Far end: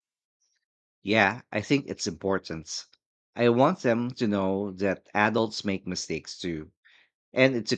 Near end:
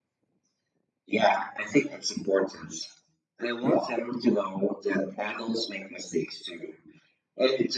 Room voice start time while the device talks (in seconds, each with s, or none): none